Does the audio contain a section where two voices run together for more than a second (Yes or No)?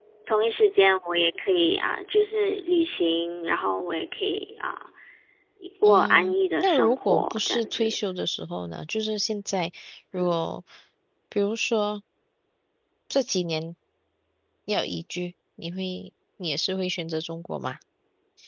Yes